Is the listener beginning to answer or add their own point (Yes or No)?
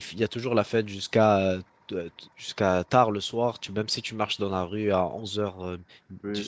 Yes